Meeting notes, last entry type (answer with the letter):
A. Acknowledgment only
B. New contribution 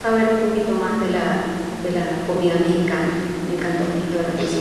B